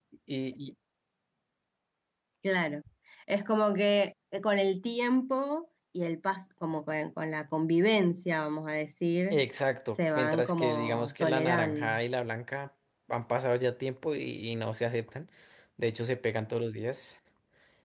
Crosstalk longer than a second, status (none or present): present